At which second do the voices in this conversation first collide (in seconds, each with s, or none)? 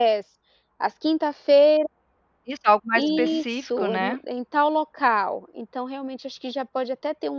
3.0 s